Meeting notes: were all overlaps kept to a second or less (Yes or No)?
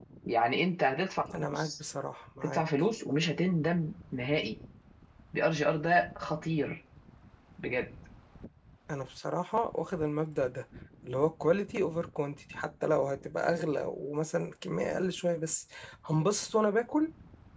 Yes